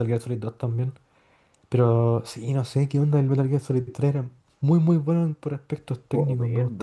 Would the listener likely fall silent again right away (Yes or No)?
No